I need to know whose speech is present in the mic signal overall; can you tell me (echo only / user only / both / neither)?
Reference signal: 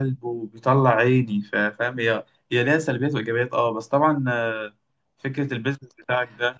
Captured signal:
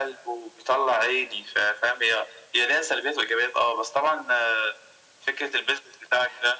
echo only